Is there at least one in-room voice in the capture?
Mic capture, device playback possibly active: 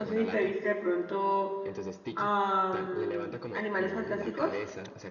Yes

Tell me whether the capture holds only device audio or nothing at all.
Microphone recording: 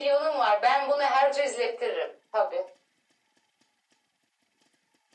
Yes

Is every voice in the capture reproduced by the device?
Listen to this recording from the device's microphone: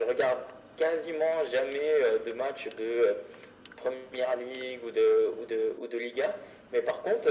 Yes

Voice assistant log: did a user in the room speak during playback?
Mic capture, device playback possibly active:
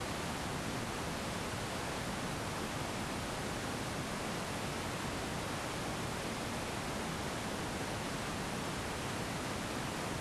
No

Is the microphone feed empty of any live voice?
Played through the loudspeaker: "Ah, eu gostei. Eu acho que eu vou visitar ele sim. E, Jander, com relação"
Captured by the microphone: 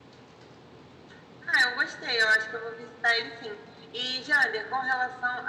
Yes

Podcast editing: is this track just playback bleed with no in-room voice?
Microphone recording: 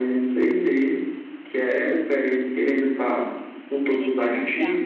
No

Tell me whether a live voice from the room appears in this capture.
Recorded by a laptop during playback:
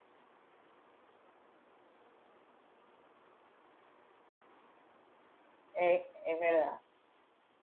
Yes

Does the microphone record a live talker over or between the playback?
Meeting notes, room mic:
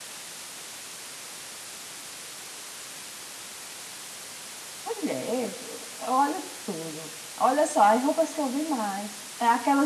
Yes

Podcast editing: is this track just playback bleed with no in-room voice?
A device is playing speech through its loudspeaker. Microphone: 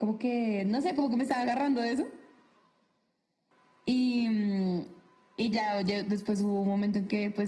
Yes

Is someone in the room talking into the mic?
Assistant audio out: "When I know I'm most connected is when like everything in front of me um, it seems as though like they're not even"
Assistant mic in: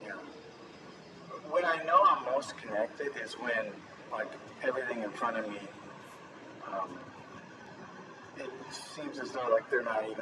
No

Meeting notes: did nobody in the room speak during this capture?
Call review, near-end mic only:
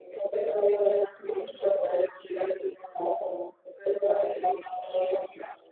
Yes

